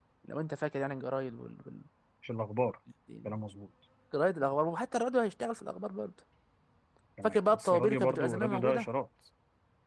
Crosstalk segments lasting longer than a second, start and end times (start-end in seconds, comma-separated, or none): 7.2-8.8